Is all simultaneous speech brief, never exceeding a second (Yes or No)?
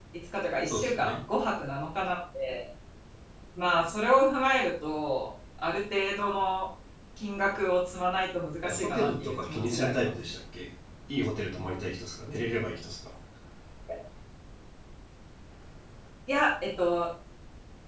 No